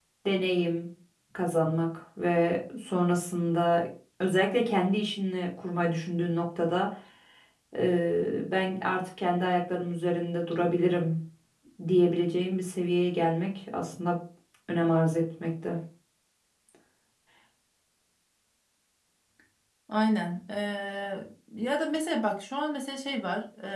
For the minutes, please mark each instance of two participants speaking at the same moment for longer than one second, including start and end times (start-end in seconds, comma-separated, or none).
none